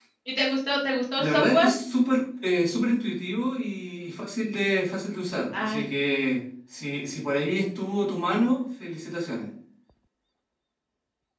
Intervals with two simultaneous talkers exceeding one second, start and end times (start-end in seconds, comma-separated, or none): none